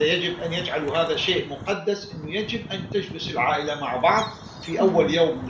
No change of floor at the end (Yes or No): Yes